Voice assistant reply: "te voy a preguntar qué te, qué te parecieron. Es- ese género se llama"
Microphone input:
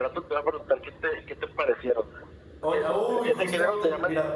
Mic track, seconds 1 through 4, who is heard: both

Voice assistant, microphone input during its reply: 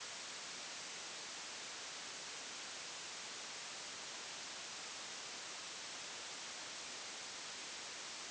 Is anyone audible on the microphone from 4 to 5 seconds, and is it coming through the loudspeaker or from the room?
neither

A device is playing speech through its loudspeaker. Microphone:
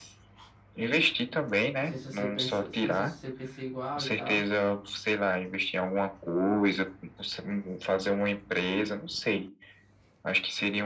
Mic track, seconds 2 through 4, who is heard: both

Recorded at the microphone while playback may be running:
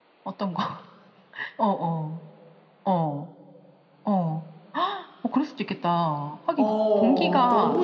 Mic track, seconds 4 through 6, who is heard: echo only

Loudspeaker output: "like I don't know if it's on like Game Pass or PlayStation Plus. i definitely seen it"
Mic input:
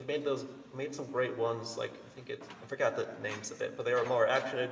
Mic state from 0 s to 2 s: user only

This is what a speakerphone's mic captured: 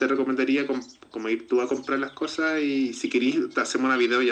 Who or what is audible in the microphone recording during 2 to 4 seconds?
echo only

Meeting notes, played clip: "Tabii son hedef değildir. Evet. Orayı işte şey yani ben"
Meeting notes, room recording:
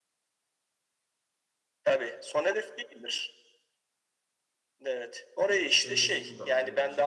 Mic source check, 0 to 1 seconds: neither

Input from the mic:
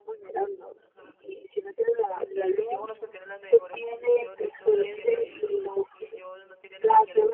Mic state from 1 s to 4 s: both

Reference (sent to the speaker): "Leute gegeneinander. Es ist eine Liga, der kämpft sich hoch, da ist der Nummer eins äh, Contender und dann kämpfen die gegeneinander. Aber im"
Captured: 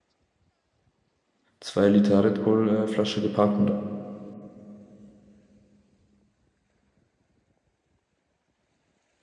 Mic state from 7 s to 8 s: neither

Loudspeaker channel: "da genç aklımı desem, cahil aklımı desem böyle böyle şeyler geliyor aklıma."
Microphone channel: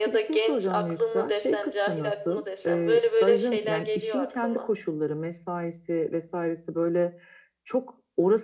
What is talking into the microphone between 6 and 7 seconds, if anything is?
user only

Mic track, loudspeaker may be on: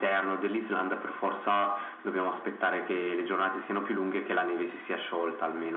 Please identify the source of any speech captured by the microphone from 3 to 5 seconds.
echo only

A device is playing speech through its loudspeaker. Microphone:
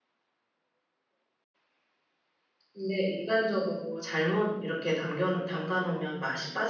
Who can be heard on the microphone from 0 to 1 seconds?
neither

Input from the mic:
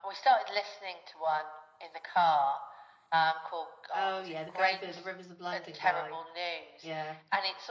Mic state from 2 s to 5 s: both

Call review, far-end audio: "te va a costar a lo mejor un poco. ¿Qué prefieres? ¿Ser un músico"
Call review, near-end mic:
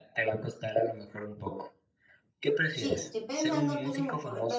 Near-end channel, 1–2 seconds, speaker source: echo only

